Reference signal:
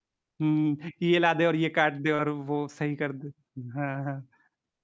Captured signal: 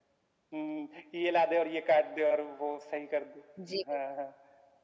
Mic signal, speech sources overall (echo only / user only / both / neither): both